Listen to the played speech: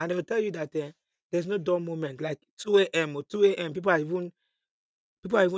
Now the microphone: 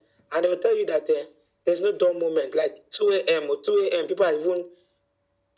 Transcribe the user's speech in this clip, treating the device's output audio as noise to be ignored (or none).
none